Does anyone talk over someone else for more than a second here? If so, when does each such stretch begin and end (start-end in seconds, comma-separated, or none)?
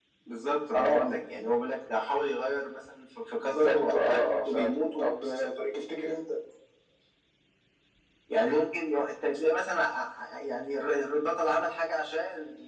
3.4-5.2